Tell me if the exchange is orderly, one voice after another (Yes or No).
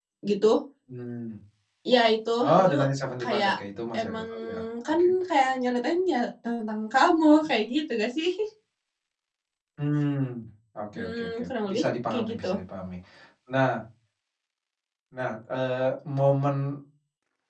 No